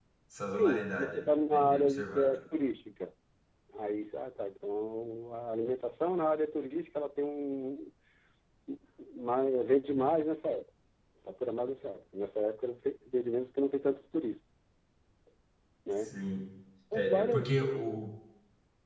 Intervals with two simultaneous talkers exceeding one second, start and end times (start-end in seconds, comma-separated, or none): 0.5-2.3